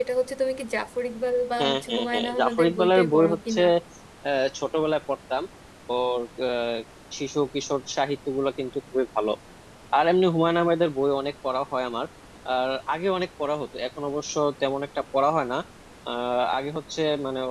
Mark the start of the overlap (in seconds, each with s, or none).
1.6 s